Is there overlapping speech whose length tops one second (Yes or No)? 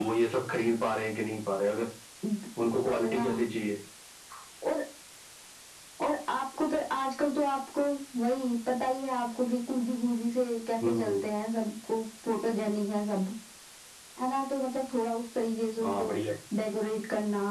No